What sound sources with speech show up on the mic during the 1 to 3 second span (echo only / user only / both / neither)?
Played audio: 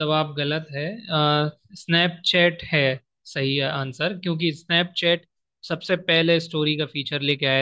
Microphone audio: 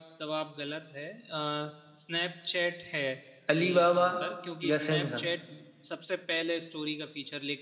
echo only